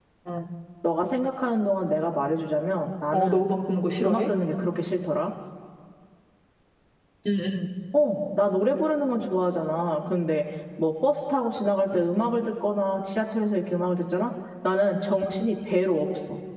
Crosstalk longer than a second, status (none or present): none